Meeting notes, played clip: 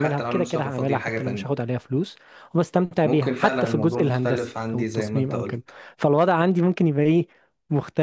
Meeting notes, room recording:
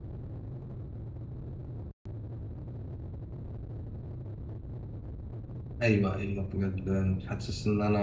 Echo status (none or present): none